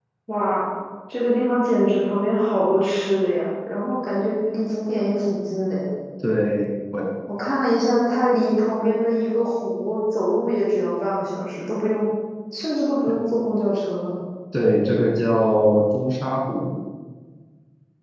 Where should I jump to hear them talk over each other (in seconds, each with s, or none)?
none